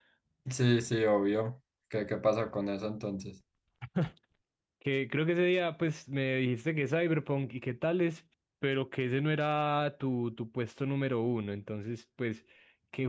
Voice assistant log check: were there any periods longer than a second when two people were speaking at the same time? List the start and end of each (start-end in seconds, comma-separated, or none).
none